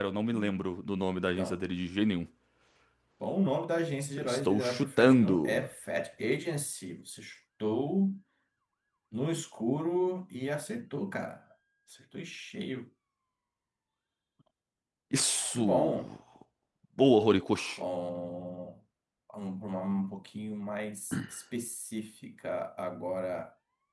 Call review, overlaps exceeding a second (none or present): present